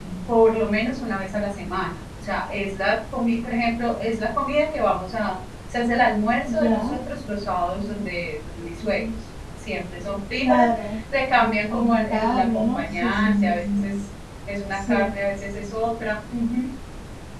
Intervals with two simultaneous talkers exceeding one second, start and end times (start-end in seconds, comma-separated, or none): 11.7-13.6